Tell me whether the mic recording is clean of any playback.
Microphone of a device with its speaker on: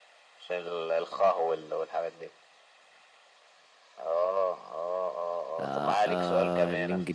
No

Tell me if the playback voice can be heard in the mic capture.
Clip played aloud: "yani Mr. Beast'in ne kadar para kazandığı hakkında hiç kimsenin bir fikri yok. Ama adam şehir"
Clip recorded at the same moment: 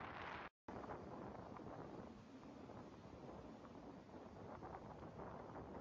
No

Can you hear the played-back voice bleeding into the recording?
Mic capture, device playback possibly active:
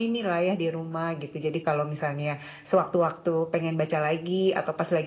Yes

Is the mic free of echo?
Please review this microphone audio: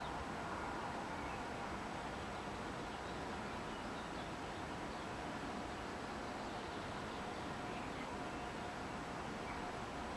Yes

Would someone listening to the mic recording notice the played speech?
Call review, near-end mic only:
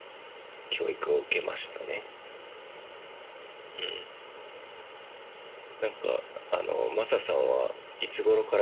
Yes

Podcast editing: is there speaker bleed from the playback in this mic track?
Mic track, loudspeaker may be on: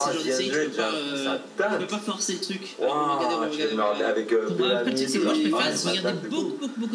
Yes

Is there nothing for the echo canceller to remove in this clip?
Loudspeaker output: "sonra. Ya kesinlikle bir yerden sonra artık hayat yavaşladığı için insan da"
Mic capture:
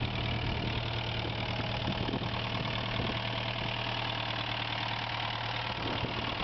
Yes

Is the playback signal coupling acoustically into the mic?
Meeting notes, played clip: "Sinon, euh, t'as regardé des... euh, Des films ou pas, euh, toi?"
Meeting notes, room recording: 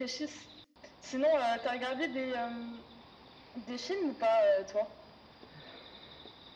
Yes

